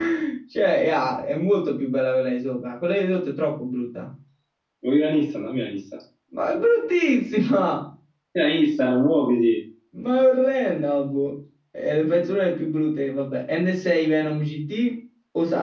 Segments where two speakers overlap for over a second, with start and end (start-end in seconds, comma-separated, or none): none